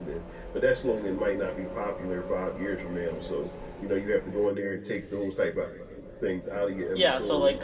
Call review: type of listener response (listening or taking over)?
taking over